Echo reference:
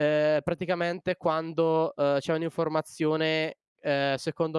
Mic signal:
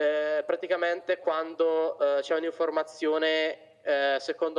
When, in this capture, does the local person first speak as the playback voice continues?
none

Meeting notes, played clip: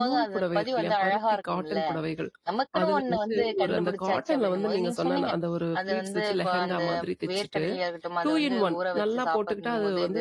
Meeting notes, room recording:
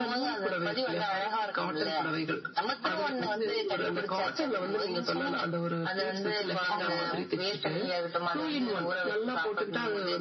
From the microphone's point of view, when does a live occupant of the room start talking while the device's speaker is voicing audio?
7 s

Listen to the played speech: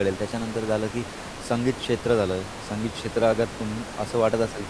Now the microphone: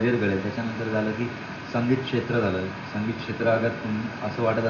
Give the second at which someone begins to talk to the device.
none

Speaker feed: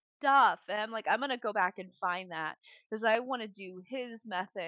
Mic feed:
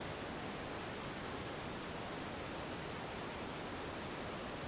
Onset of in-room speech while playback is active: none

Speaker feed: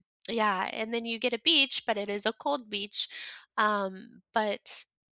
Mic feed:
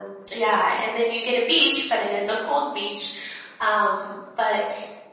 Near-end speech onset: none

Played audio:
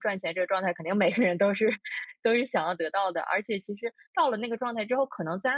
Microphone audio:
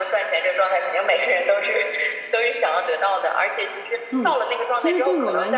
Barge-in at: 4 s

